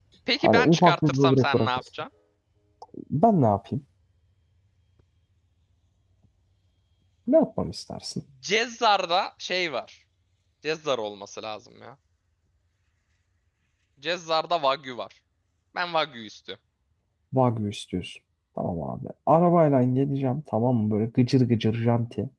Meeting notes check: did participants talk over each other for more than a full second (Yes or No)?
Yes